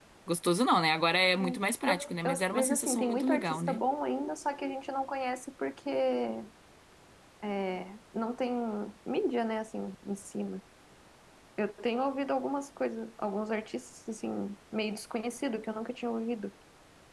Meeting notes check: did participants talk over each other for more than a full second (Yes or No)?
Yes